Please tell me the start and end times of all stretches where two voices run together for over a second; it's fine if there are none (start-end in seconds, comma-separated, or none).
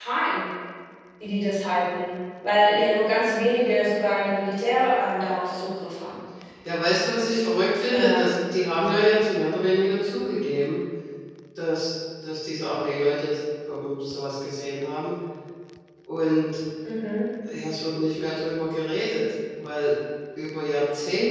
none